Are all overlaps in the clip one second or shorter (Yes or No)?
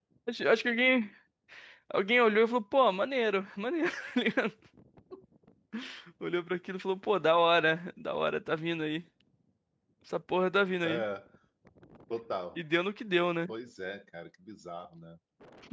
Yes